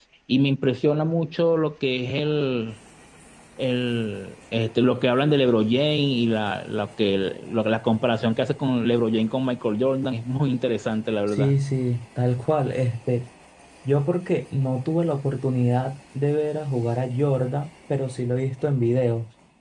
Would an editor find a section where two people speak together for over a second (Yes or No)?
No